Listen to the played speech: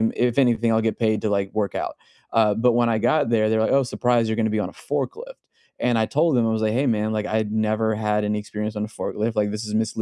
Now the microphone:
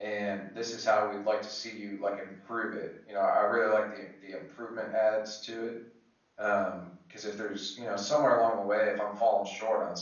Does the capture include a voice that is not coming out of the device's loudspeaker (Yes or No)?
Yes